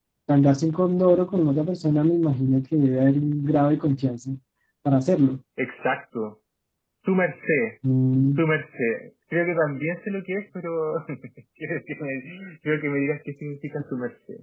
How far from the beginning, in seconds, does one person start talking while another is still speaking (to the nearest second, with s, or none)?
none